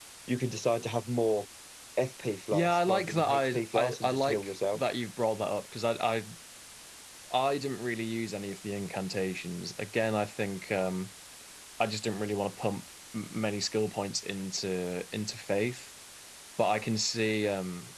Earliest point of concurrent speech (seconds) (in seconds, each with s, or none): 2.5 s